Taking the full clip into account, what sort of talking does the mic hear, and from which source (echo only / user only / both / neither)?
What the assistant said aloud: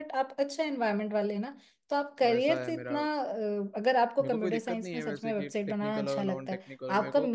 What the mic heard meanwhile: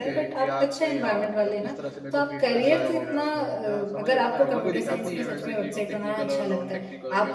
both